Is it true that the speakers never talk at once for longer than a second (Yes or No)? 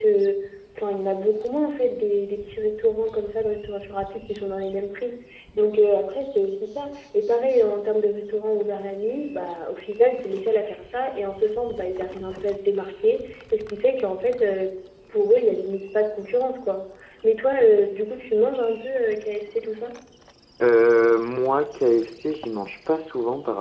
Yes